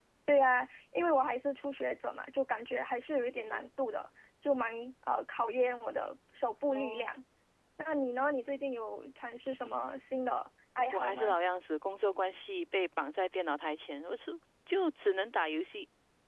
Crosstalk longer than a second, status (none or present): none